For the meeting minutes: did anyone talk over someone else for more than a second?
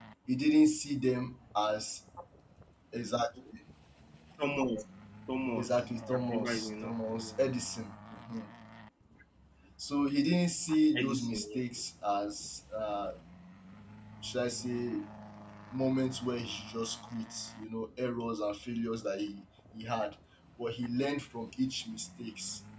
Yes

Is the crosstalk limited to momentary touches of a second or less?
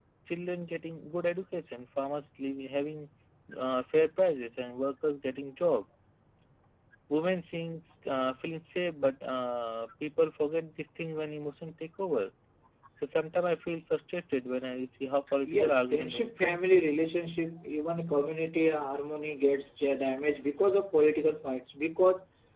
No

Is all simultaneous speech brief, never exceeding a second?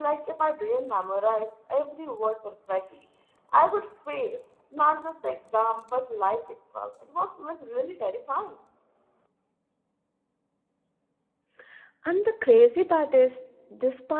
Yes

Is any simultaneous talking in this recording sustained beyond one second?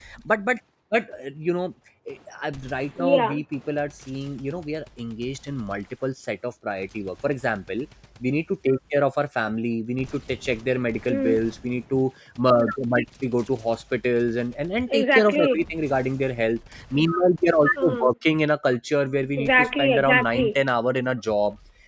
Yes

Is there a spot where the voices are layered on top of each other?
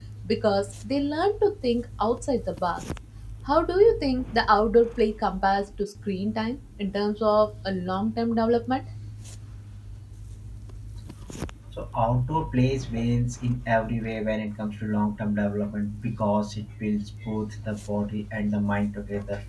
No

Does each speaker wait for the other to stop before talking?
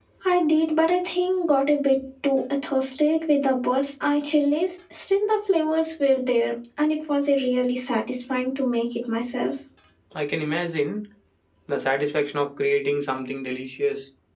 Yes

